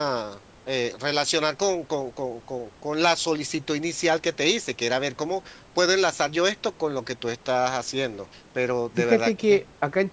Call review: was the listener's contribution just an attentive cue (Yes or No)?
No